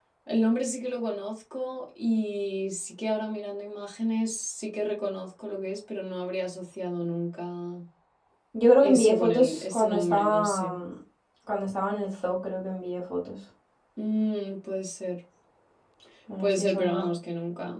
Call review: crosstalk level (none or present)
present